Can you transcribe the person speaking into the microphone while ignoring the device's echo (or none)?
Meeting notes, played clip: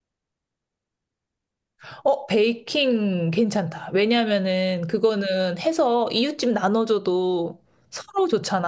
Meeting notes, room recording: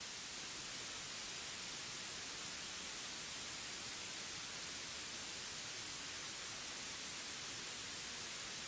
none